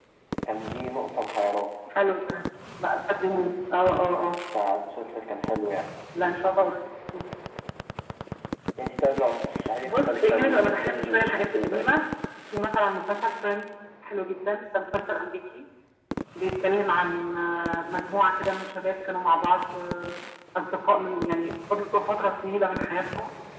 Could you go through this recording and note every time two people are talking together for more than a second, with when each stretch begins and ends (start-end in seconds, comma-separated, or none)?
9.8-11.9